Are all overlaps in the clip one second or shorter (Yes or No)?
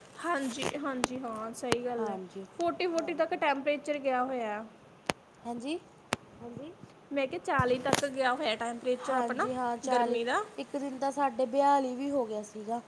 Yes